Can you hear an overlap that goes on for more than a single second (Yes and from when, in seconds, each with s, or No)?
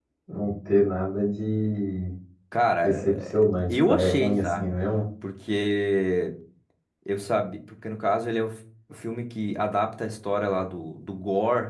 Yes, from 2.8 s